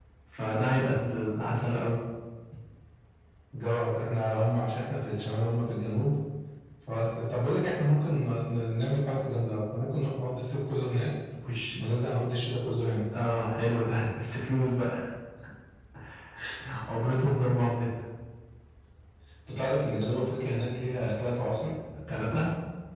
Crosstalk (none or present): none